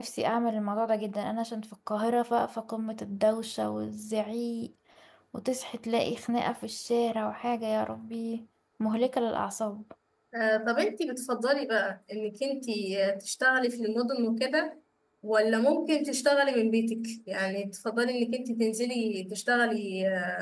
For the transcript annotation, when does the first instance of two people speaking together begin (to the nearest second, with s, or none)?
none